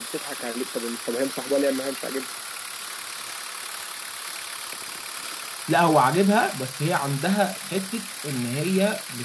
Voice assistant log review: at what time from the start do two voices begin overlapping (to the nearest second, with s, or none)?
none